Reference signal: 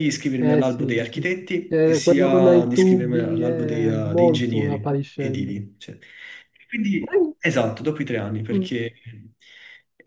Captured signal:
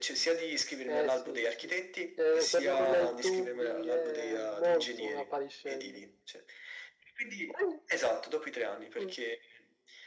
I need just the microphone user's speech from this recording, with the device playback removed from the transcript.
none

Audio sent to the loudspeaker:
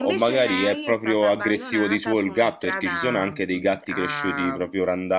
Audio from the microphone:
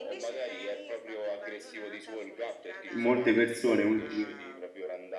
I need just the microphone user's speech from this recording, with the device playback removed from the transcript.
Molte persone, molti-

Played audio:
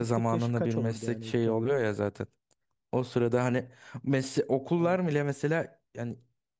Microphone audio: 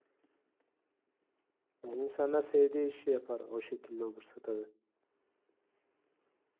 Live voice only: Yani insanlar sevdiği işi yapar o şekilde olursa tabii.

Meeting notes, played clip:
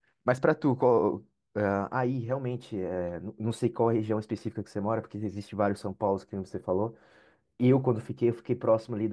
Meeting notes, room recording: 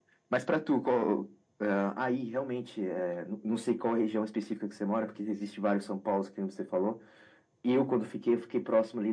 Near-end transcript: none

